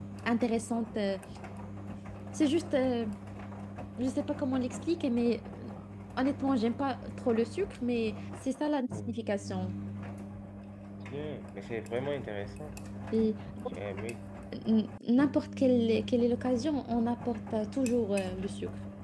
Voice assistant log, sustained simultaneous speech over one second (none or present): none